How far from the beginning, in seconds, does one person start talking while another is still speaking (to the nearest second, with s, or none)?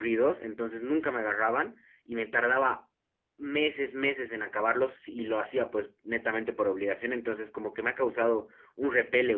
none